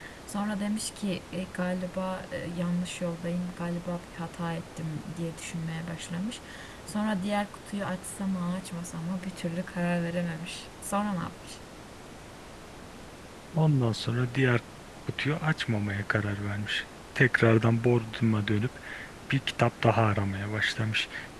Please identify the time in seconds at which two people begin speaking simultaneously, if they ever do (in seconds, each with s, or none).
none